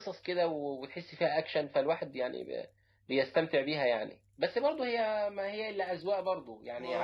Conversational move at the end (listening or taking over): taking over